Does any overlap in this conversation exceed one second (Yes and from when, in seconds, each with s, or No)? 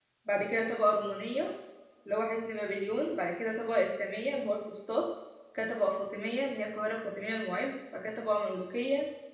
No